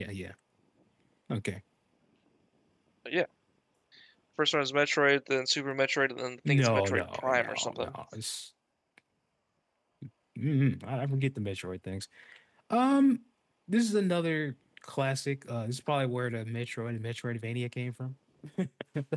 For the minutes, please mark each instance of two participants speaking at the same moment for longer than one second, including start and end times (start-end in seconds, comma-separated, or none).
6.5-7.9